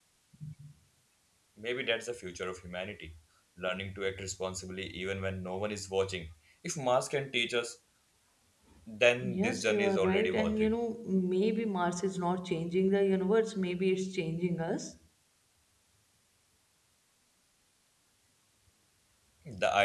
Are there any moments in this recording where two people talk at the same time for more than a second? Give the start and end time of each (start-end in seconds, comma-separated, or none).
9.2-10.8